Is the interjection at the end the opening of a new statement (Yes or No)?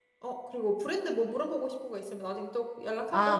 Yes